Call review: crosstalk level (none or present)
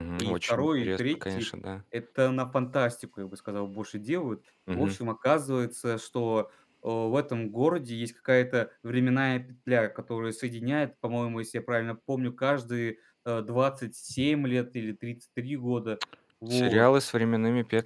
present